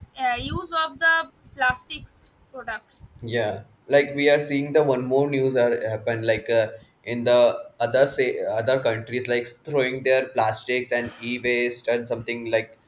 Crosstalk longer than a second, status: none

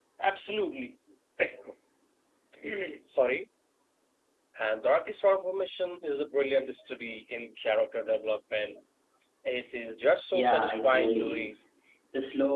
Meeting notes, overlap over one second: present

